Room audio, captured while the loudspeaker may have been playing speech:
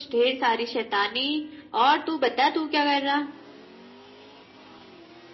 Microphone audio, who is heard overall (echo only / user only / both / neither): echo only